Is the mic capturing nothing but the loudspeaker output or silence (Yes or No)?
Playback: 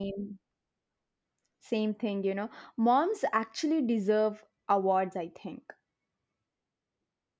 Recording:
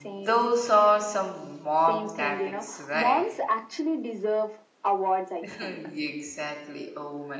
No